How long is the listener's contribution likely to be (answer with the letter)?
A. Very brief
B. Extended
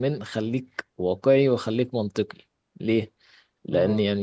A